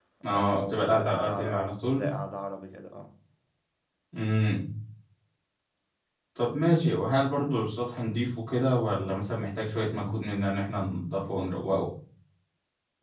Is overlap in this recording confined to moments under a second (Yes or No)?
No